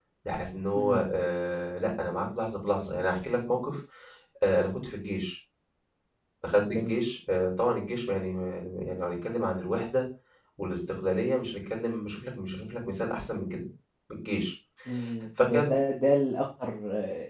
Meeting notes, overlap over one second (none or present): none